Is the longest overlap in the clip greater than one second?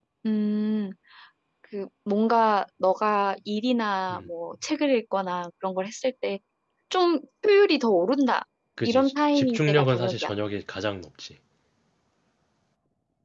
Yes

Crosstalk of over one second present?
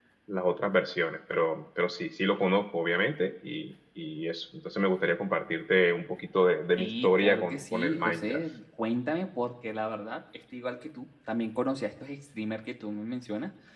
Yes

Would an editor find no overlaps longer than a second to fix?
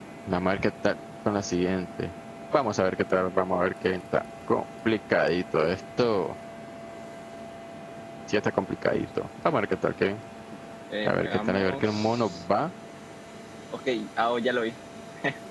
No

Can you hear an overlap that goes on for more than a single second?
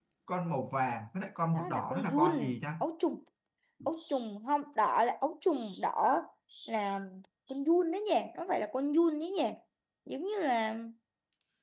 Yes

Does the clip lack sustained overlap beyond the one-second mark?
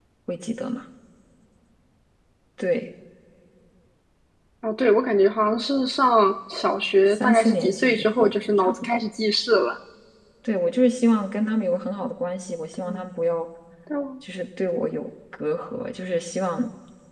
No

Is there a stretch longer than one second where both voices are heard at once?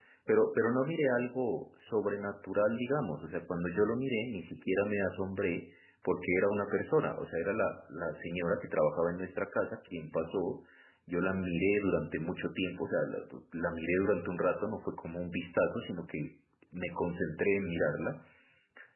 No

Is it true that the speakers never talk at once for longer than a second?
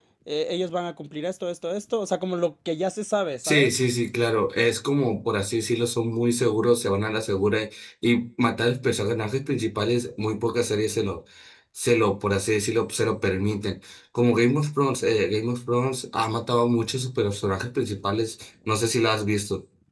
Yes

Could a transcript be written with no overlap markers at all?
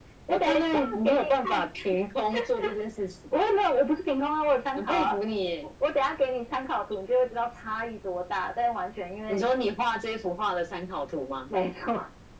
No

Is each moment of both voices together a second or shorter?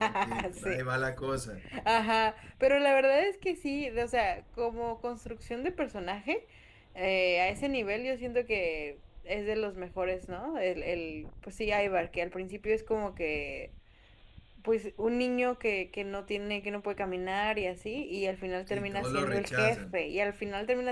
No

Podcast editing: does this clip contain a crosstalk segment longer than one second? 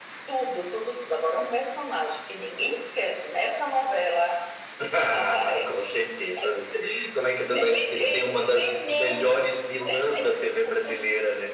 Yes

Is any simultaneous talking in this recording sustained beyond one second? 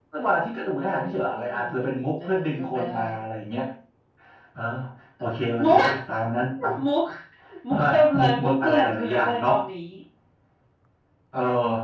Yes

